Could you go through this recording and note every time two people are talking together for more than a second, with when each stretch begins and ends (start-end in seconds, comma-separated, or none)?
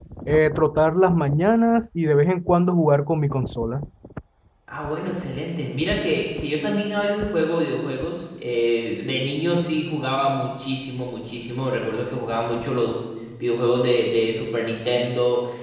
none